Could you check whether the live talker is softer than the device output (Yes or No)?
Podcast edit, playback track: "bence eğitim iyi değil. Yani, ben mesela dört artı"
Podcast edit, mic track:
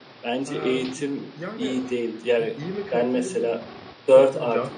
Yes